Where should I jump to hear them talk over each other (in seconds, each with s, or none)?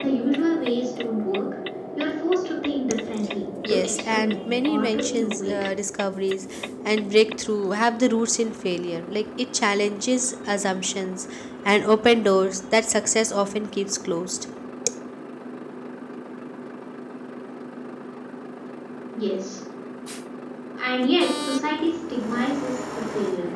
3.6 s